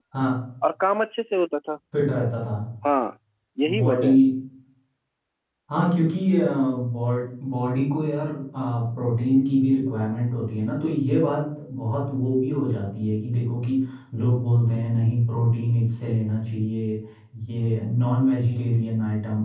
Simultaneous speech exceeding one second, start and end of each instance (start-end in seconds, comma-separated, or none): none